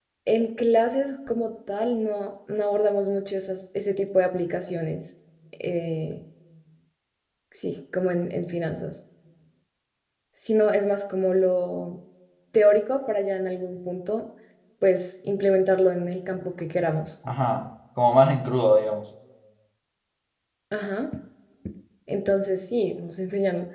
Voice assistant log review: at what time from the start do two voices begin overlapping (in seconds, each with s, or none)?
none